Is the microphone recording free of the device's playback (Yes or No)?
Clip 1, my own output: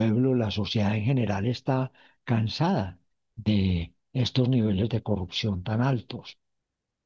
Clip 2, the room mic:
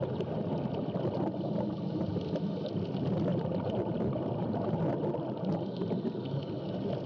Yes